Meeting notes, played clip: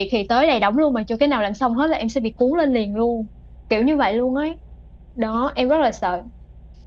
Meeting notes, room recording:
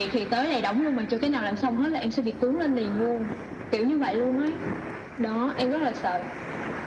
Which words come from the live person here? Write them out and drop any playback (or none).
none